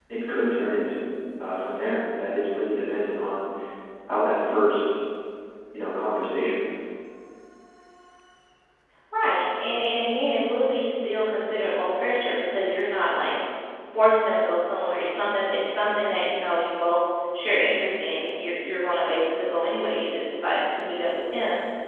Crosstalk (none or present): none